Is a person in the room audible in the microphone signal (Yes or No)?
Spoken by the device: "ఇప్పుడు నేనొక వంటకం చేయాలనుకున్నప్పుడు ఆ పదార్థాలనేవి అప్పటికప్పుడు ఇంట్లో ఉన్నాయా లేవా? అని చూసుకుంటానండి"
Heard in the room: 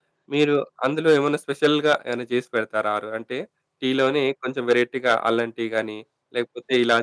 Yes